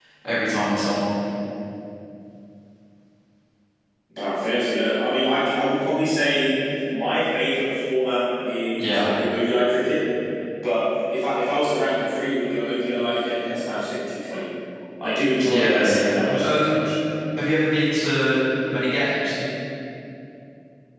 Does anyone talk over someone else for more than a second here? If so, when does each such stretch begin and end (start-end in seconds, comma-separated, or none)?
15.5-16.8